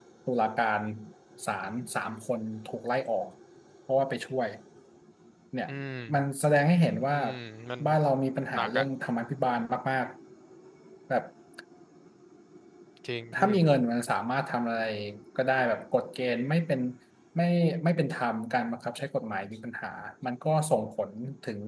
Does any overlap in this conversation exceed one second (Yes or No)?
No